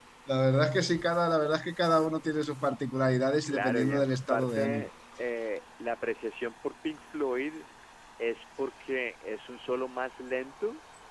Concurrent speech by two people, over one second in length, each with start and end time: 3.4-4.9

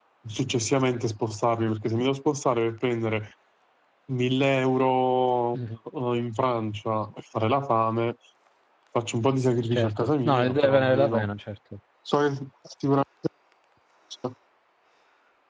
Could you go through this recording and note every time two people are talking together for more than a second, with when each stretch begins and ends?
9.7-11.3

